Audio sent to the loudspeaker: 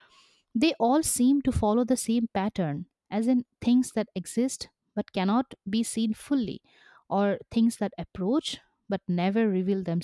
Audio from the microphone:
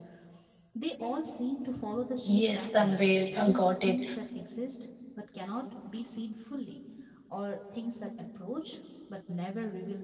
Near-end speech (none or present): present